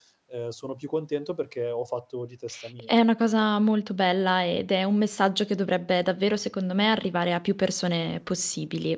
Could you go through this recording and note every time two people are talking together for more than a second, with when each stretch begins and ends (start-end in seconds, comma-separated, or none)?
none